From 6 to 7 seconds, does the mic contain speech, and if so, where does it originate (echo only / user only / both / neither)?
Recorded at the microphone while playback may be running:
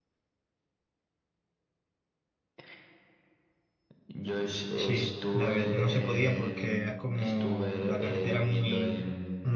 both